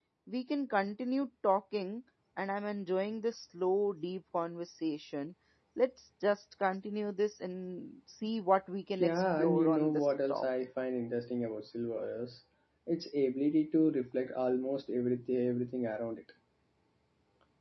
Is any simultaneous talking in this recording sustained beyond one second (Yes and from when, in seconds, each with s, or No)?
Yes, from 9.0 s